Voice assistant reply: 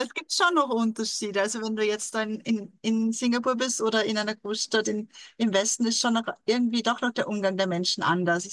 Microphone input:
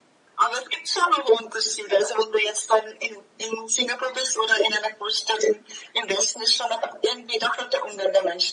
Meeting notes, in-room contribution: none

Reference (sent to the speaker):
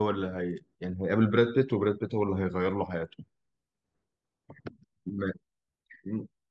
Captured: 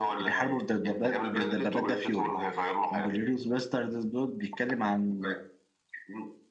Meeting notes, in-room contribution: present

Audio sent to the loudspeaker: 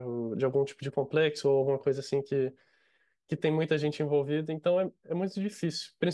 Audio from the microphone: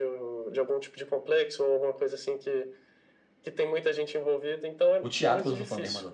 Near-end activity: present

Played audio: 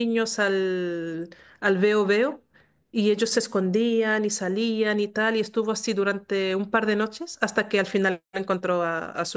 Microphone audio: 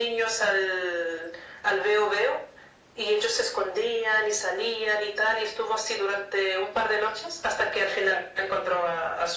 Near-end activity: none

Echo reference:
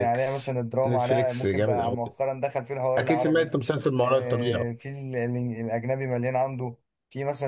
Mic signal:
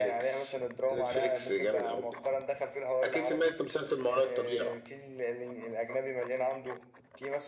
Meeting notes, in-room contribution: none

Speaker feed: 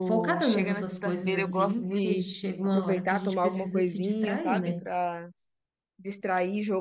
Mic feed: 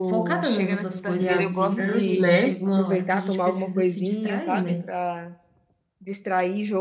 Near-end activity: present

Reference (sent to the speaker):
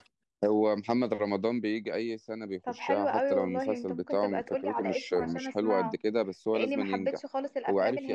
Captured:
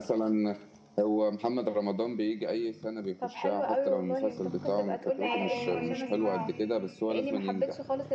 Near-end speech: present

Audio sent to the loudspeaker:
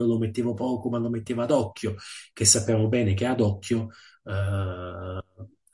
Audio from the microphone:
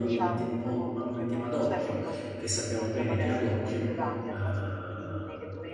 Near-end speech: present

